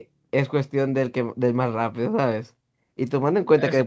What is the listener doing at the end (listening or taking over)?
listening